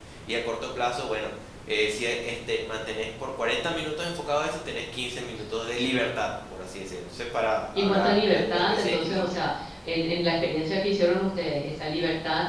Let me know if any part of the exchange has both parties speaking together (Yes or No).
Yes